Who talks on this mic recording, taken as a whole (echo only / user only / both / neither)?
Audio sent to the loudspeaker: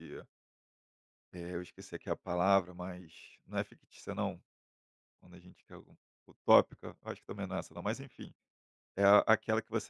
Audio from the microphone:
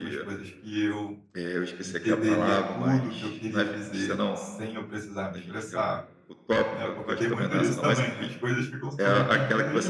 both